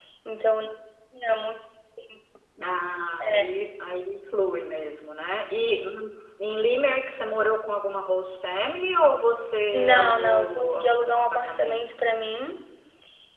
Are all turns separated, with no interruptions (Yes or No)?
No